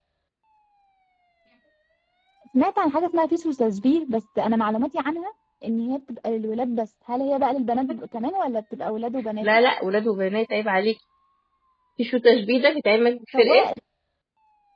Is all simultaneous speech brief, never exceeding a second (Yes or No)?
Yes